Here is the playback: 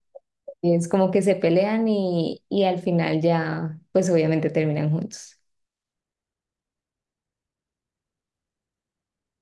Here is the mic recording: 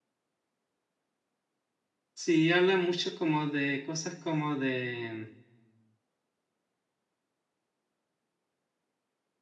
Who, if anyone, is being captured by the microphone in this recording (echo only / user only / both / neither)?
user only